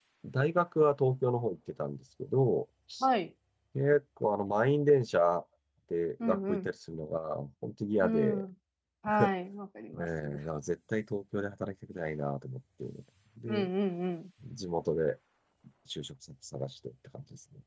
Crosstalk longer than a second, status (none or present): none